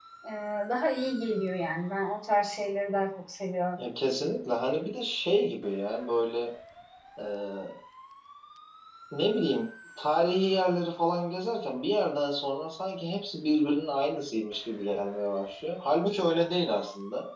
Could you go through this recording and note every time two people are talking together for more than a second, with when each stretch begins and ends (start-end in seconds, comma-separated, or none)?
none